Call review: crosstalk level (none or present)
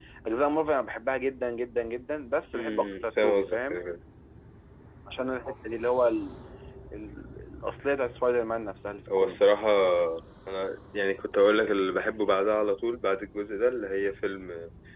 present